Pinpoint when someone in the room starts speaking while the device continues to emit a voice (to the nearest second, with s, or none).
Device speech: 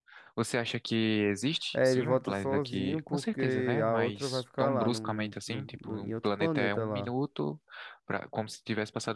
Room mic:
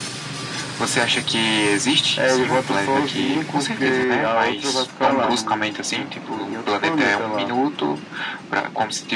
none